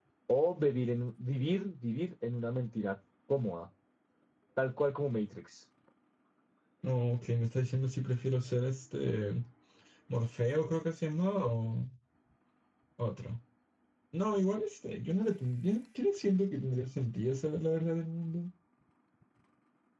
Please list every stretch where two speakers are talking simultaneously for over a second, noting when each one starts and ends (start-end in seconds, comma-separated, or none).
none